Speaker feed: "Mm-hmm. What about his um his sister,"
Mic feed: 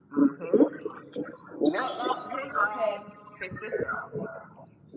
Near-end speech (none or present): present